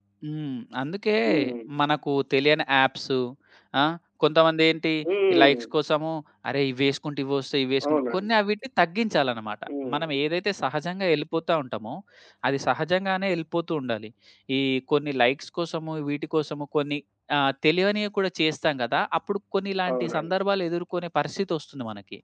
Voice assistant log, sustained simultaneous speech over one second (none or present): none